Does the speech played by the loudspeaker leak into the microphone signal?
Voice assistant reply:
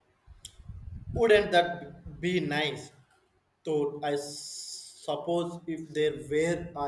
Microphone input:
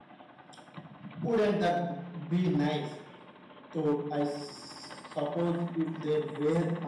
Yes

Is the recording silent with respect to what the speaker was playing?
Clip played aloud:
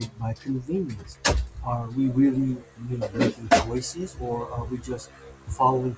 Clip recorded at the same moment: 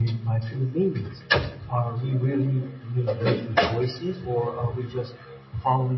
No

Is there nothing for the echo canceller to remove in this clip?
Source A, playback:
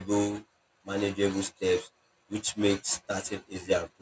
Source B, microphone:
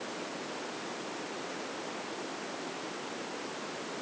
Yes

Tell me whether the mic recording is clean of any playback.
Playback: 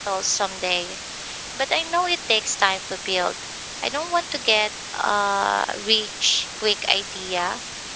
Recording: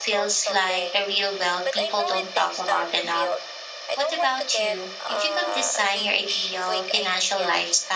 No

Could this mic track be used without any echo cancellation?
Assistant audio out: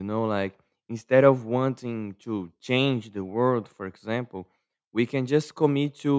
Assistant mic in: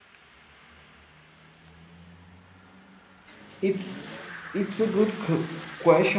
Yes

